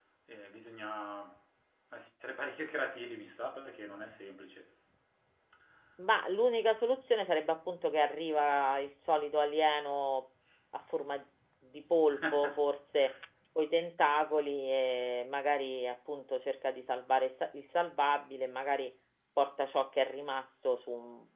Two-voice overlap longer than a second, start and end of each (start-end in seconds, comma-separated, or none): none